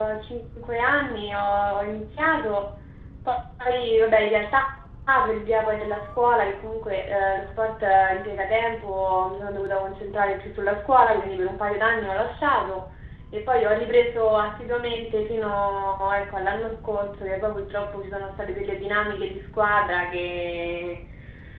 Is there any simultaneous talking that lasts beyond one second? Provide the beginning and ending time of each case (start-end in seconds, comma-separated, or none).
none